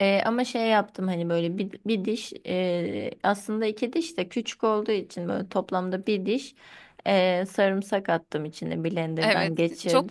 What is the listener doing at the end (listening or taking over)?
taking over